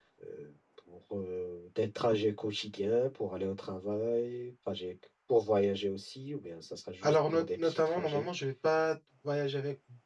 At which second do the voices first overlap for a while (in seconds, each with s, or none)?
7.0 s